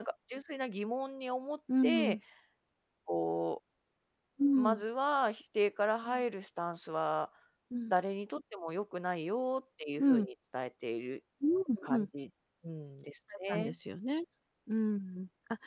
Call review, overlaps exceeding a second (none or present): none